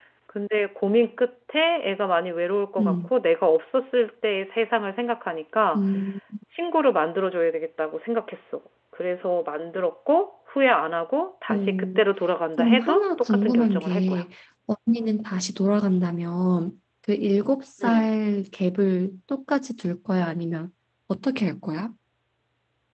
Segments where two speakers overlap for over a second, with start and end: 12.6-14.2

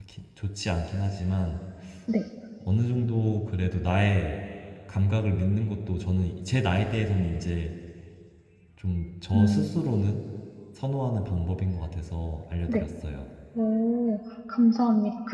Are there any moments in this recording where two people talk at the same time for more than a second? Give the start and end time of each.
none

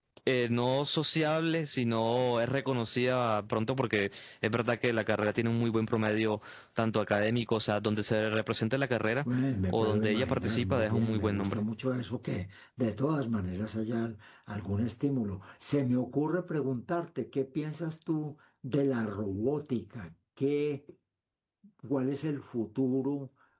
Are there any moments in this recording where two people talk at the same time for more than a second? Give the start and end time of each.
9.7-11.6

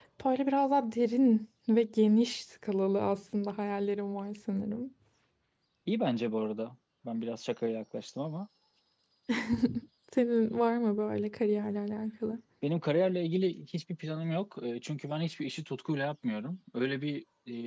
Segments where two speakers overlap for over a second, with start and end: none

